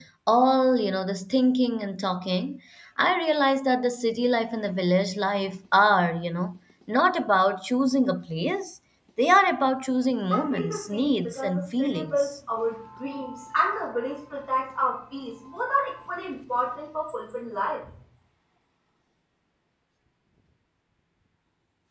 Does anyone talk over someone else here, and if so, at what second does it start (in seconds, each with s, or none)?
10.3 s